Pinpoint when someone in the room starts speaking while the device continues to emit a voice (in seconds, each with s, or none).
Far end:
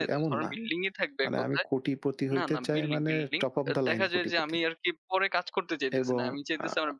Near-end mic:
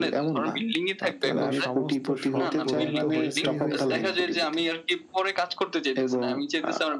1.0 s